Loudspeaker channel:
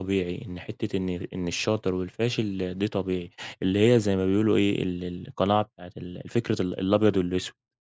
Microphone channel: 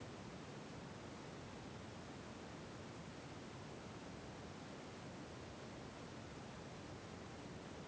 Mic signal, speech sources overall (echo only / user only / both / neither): neither